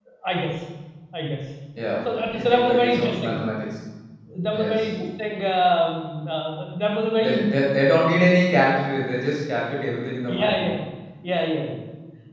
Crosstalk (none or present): present